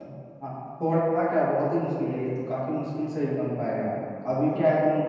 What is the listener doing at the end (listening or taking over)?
listening